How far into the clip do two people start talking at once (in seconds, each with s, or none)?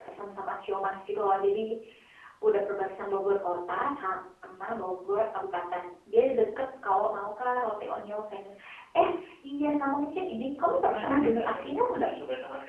10.6 s